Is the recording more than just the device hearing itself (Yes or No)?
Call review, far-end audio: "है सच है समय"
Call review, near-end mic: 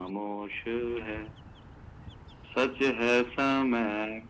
No